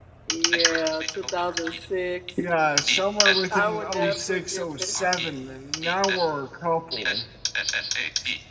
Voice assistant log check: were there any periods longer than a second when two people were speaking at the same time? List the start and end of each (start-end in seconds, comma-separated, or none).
0.5-1.7, 2.9-5.3